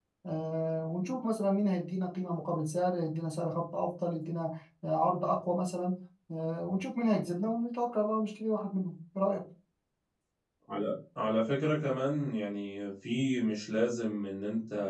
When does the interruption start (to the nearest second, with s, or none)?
none